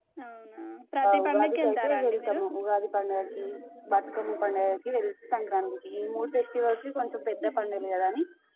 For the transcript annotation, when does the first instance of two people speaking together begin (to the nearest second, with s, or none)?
1 s